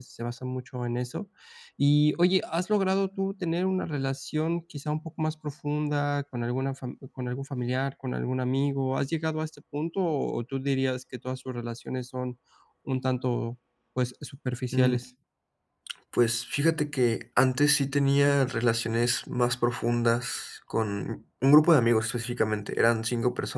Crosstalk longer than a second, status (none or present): none